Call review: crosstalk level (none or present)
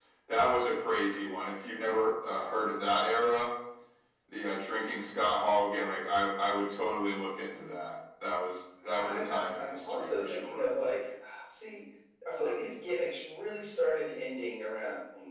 present